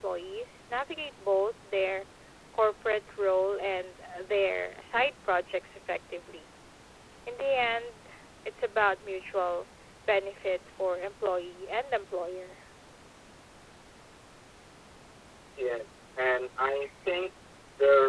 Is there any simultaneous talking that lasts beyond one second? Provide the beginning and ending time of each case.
none

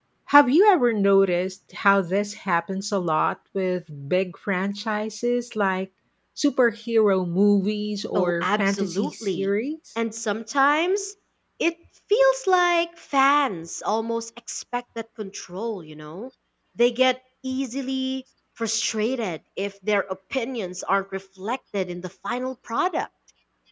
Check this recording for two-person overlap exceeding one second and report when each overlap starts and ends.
8.2-9.5

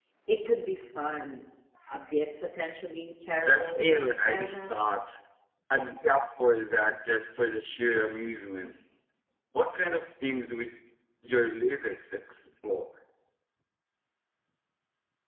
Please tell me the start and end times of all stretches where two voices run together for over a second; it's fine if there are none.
3.4-4.8

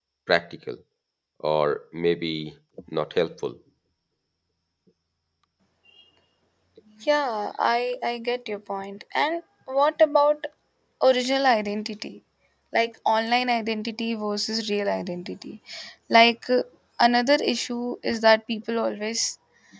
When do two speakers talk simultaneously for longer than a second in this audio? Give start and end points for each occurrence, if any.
none

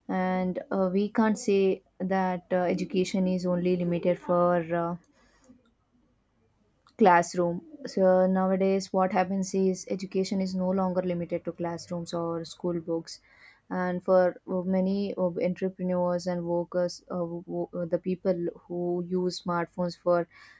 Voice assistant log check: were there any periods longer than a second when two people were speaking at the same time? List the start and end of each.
none

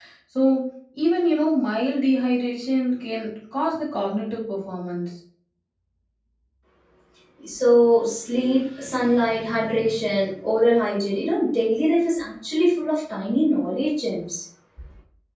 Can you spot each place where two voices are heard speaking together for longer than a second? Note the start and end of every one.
none

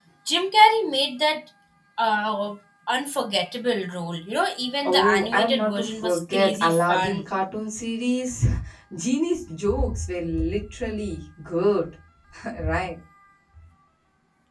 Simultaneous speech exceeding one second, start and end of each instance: 4.9-7.2

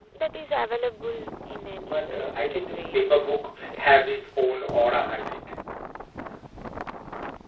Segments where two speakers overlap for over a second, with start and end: 1.7-3.0

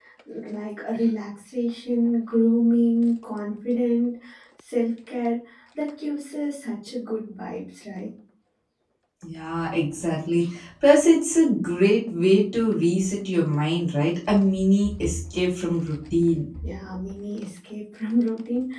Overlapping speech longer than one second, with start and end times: none

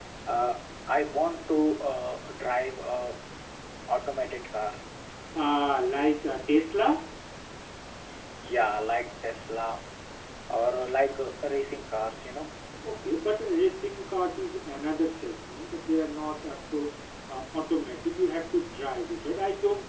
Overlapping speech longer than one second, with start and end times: none

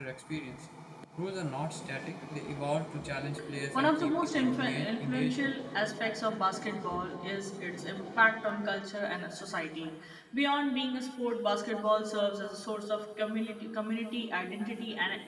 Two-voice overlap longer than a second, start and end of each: 3.7-5.5

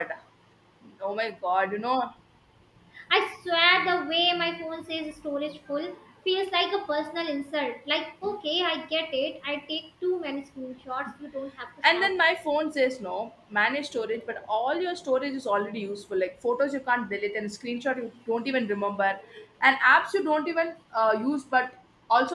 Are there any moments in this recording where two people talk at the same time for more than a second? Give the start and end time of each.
none

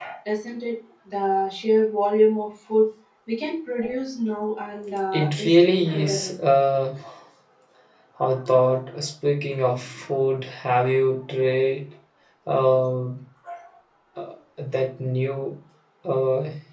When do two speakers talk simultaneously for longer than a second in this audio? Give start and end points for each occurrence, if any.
5.1-6.4

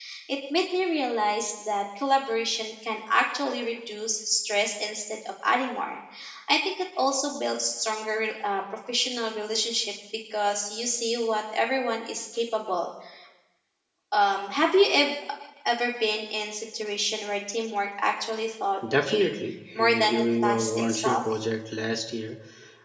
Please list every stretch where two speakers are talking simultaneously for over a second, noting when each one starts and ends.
19.7-21.2

